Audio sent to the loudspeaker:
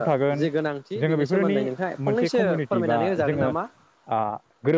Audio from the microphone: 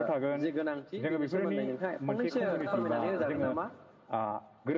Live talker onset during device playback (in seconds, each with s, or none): 2.3 s